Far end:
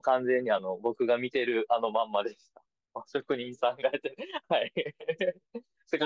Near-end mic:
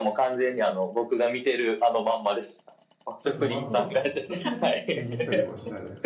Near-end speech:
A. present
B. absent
A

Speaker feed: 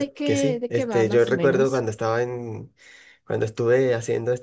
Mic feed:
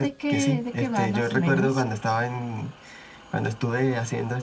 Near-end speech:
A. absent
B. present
A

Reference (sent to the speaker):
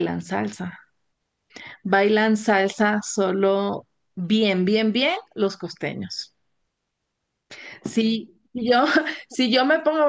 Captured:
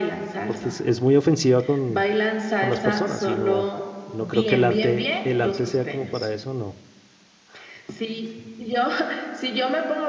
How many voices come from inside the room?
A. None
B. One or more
B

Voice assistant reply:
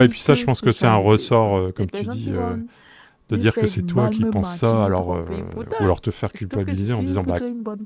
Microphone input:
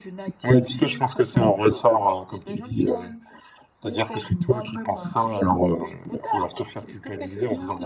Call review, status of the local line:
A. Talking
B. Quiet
B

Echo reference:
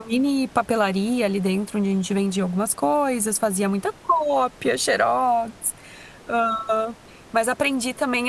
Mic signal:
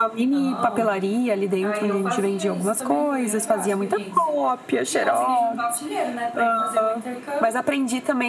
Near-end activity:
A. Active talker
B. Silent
A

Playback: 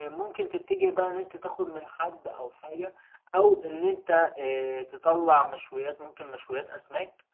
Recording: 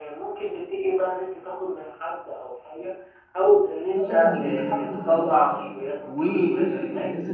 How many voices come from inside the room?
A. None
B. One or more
B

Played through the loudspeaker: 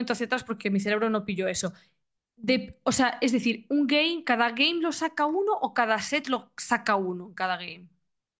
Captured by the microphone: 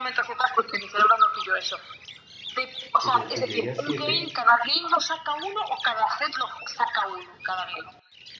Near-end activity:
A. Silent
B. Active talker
B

